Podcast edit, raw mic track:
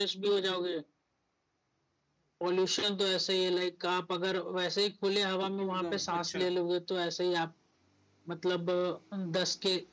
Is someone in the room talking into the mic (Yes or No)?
Yes